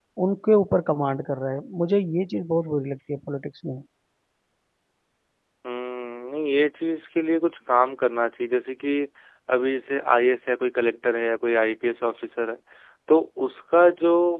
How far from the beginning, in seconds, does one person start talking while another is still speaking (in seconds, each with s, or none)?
none